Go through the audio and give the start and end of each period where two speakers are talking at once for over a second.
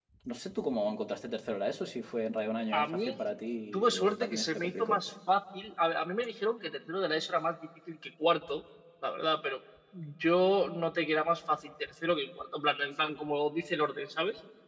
3.7-5.0

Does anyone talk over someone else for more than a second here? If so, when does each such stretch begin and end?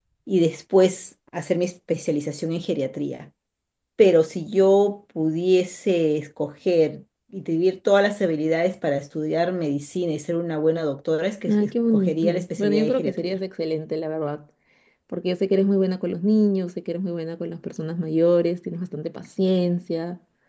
11.5-13.3

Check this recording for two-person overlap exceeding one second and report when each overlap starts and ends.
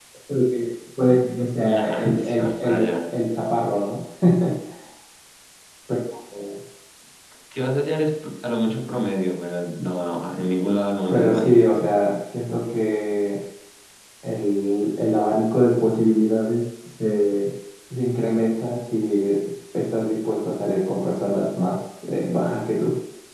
1.6-2.9

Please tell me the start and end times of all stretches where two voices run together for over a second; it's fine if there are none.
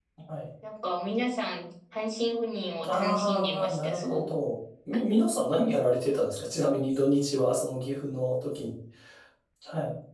2.9-4.3

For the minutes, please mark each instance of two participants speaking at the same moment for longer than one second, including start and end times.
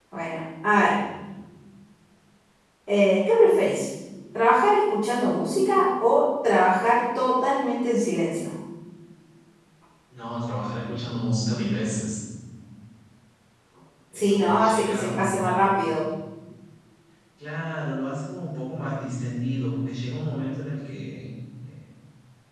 14.1-15.6

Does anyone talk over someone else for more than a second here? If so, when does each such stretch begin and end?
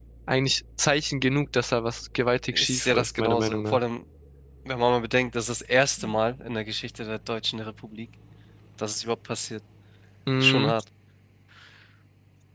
2.5-3.8

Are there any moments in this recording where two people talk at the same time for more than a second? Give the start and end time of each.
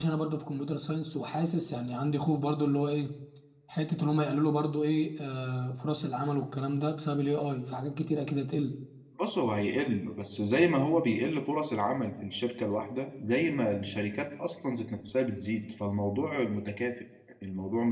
none

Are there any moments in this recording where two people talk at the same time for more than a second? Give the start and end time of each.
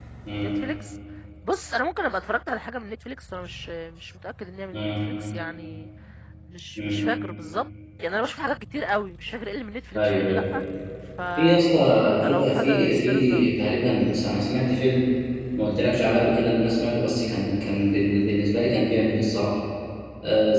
12.3-13.5

